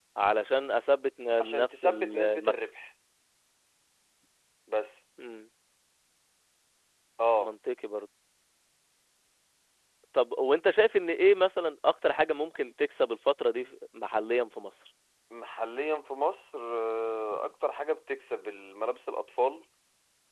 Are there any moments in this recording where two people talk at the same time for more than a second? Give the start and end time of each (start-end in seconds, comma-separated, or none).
1.4-2.7